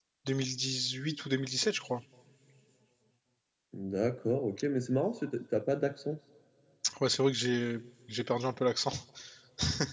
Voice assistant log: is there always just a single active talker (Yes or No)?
Yes